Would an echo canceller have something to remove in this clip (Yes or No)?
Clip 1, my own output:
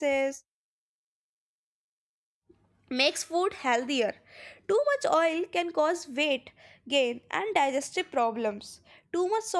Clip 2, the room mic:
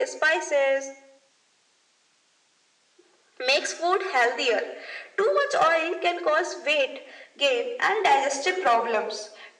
Yes